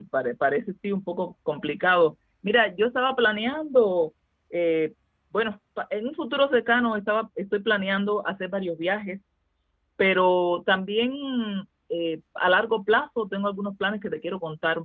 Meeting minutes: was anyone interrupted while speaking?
No

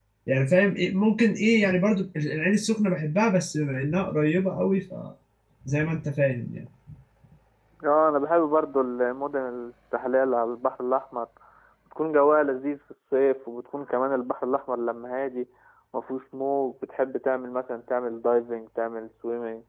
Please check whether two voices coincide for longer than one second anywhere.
No

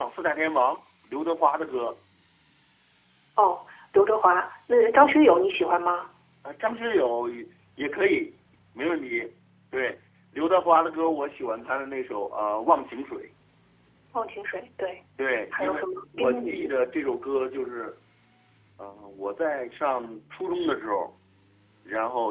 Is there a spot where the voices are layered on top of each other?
Yes, from 15.5 s

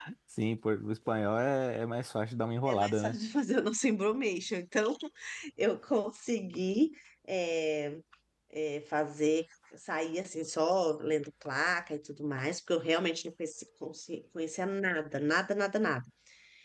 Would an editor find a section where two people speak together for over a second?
No

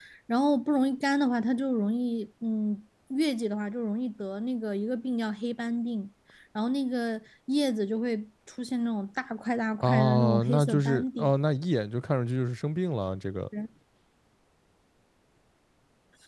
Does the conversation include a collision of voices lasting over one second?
Yes, from 9.8 s

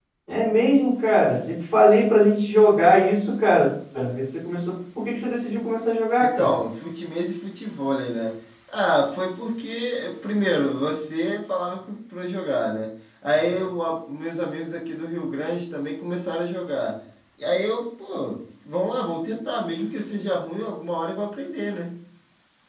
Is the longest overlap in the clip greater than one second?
No

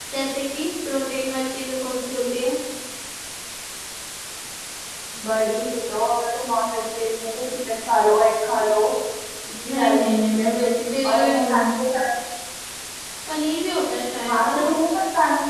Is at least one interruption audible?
Yes, from 9.7 s

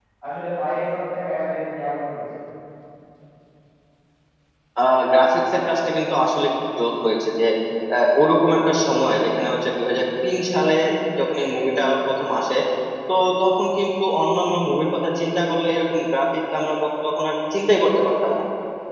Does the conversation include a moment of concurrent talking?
No

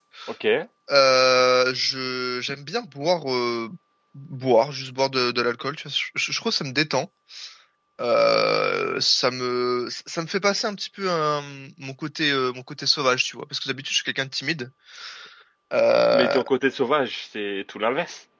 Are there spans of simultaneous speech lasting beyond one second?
No

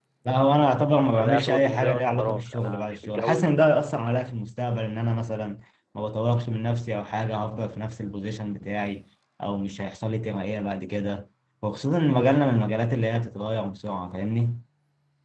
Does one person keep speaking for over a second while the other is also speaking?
Yes, from 1.2 s

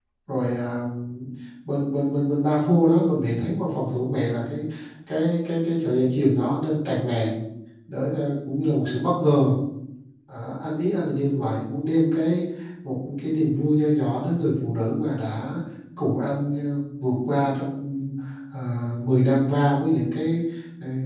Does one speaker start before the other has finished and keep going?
No

